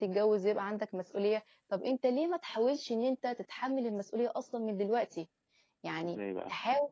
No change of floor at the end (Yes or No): Yes